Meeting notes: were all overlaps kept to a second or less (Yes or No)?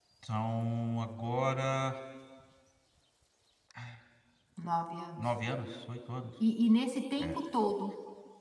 Yes